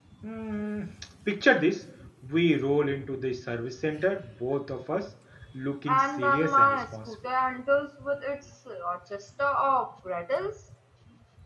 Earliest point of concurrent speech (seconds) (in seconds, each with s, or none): 5.9 s